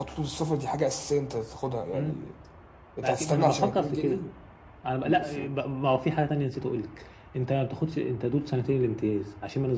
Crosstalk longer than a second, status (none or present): present